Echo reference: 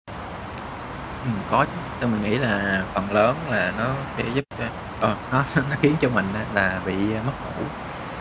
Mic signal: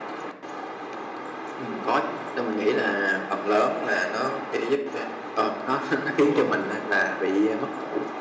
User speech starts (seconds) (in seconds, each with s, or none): 6.1 s